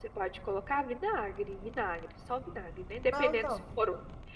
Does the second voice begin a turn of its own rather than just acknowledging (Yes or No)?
No